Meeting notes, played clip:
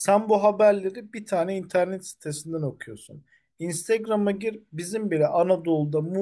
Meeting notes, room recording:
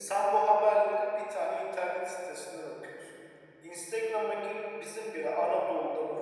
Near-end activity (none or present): none